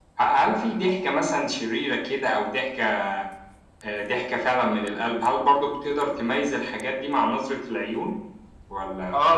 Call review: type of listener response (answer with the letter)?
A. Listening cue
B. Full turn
B